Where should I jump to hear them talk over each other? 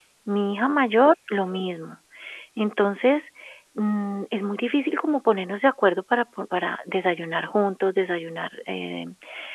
none

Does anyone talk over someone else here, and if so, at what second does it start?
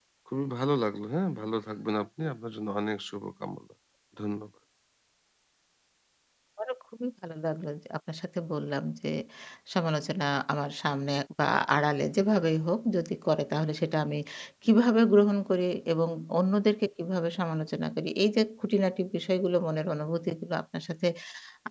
none

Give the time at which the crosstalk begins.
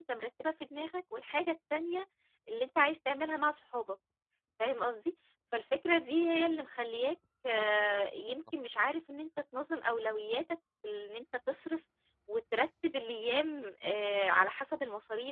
none

